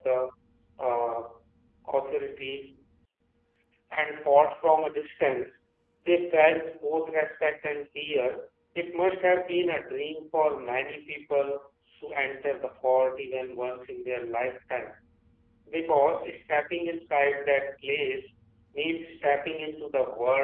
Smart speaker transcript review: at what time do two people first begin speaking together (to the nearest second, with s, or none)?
none